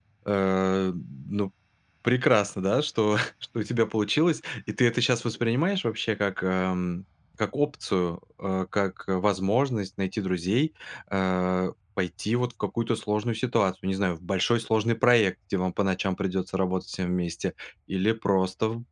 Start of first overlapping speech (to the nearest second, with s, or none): none